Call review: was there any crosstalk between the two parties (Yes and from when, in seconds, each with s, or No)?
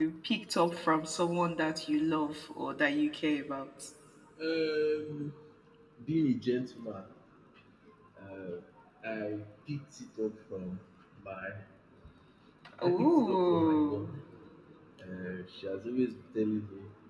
Yes, from 12.8 s